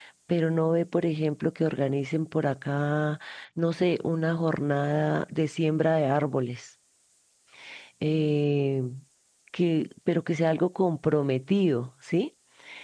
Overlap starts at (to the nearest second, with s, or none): none